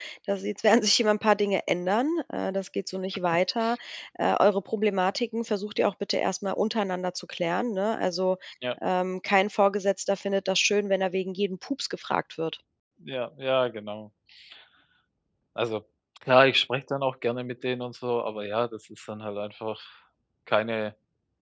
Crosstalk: none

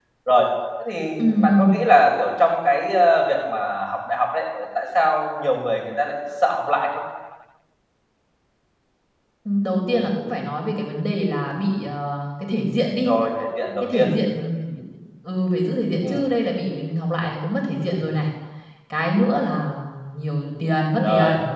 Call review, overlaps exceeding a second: none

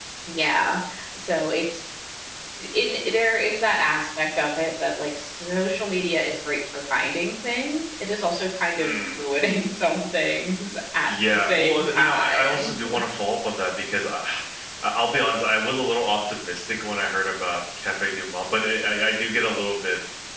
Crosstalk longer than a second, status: present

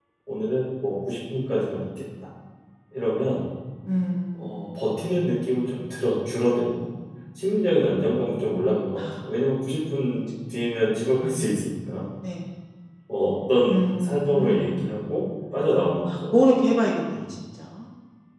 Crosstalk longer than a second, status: present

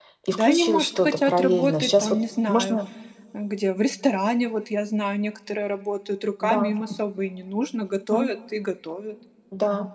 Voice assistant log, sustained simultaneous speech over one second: present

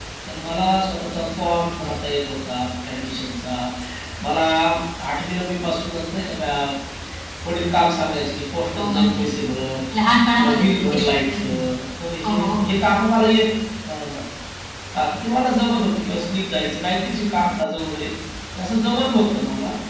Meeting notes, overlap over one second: present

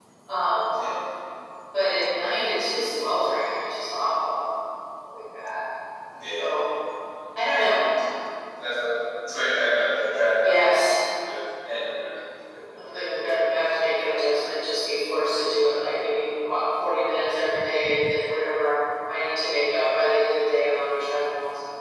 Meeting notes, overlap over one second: none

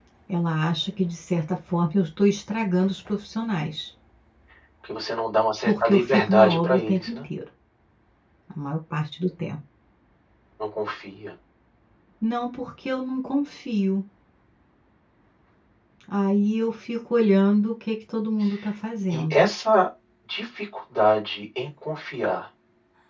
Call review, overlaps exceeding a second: present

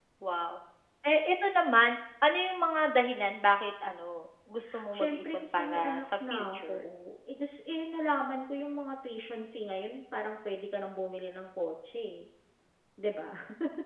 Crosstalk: present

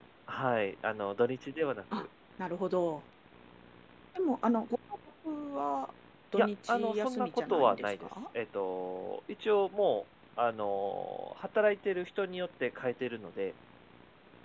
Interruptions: present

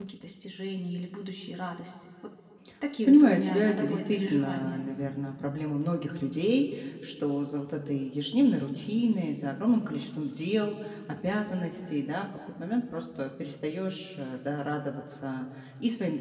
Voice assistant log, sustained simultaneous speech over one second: present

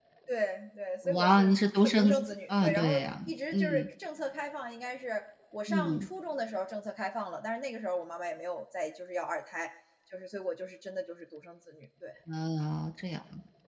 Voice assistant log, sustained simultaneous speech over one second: present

